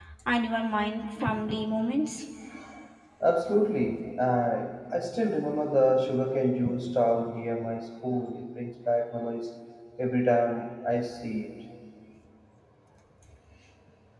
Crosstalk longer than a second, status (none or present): none